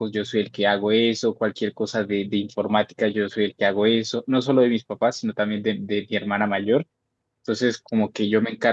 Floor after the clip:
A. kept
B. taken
A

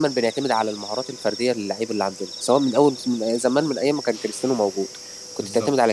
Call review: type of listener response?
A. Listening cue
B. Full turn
A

